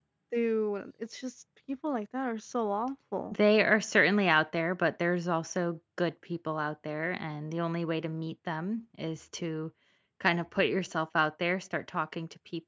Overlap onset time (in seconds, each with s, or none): none